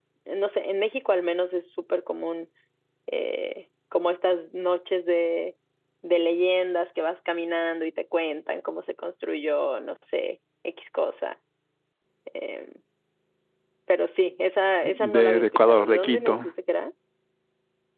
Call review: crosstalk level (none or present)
present